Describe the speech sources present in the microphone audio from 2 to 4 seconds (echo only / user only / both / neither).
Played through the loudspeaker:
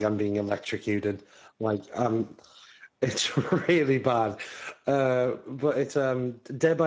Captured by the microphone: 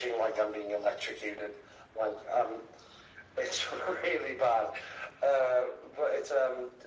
echo only